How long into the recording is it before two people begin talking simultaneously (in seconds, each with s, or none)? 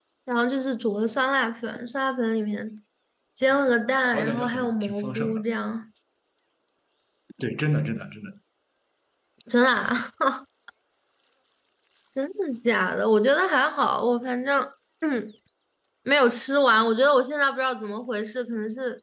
4.0 s